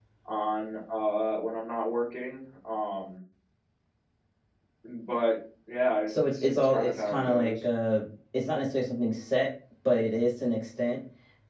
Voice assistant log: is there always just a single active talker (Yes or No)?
No